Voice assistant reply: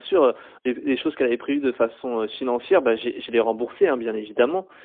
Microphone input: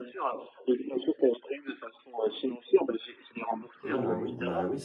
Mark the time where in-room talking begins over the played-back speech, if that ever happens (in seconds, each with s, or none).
3.8 s